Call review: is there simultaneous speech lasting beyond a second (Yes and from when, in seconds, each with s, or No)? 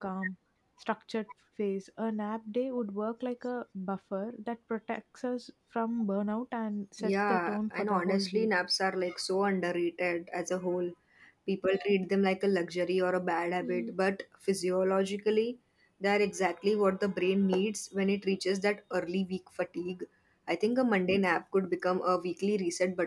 Yes, from 7.0 s